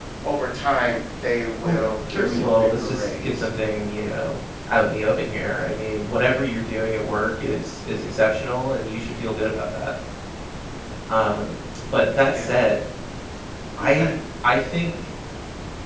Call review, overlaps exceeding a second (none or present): present